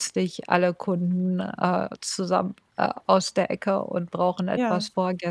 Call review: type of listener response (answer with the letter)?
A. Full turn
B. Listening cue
B